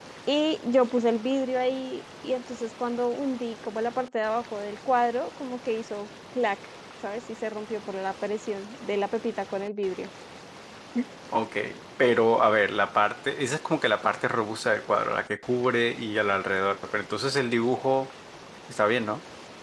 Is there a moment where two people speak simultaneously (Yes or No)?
No